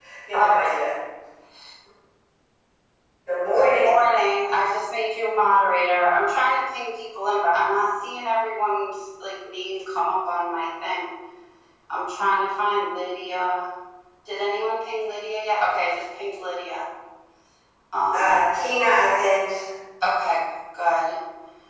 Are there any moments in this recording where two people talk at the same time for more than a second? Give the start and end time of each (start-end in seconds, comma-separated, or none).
none